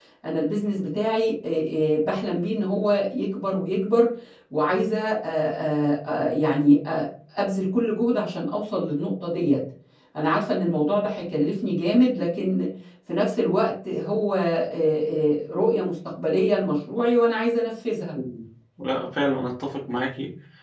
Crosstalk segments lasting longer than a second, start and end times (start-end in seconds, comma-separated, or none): none